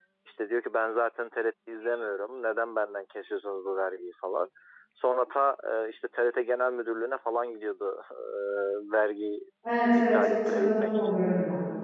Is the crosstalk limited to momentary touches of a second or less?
No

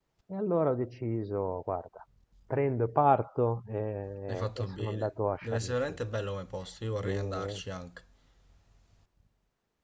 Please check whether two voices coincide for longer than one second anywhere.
Yes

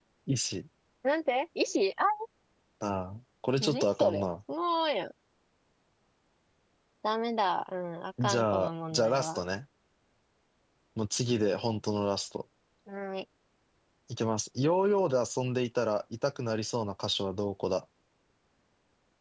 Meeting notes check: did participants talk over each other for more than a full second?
Yes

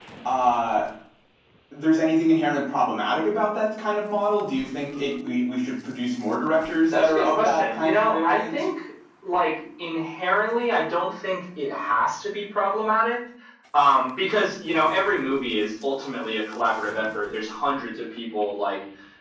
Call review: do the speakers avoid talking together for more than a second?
No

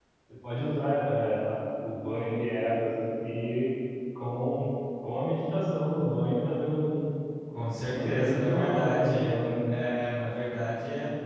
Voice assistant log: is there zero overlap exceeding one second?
No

